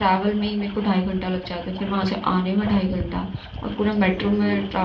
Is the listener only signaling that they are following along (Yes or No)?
Yes